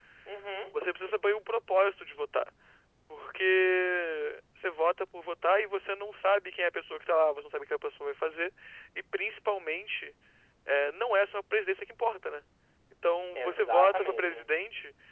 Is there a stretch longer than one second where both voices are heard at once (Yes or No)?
Yes